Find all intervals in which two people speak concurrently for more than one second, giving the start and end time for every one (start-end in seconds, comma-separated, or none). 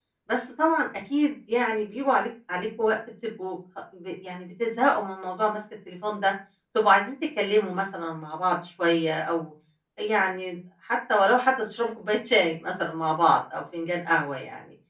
none